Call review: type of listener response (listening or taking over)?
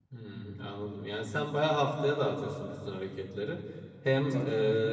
listening